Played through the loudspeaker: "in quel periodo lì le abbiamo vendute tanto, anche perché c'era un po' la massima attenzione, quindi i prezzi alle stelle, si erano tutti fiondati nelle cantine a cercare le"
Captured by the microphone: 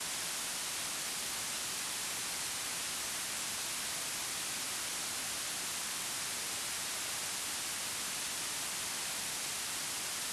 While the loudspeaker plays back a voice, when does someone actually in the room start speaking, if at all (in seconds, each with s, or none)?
none